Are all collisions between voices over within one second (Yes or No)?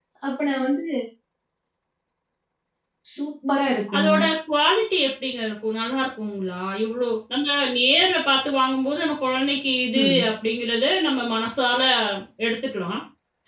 Yes